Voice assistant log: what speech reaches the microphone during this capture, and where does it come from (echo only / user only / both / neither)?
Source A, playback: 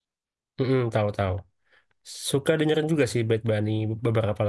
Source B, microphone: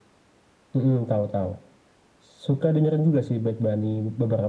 echo only